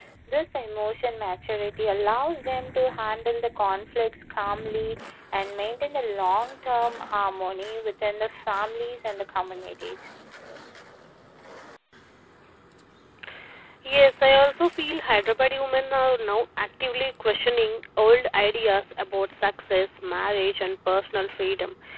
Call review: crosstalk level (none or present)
none